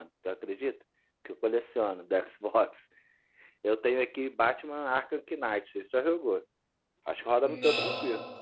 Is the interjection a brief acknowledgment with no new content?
No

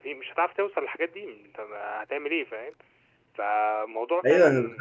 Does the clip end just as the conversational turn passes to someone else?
Yes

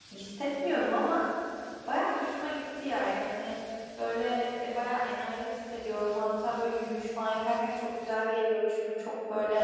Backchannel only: Yes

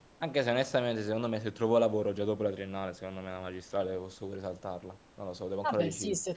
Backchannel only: No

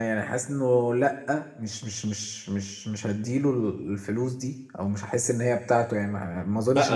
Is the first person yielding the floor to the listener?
Yes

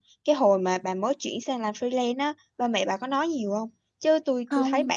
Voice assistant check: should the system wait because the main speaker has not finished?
Yes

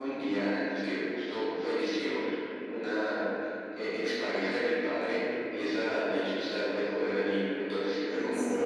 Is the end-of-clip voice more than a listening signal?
No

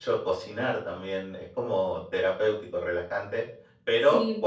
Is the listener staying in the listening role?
Yes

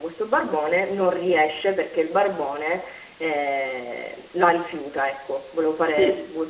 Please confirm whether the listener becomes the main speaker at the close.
Yes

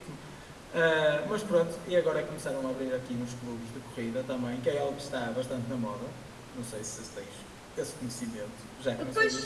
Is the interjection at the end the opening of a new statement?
Yes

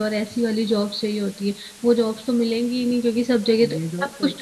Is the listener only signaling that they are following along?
No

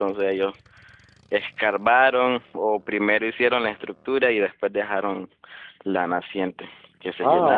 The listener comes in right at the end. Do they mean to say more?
Yes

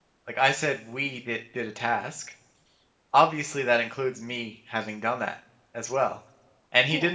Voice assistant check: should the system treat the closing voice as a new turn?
No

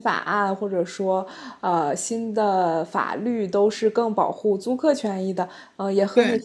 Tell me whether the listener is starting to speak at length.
No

